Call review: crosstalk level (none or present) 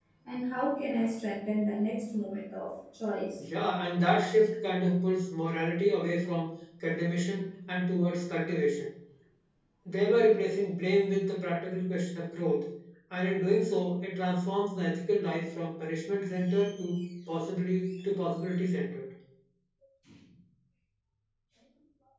none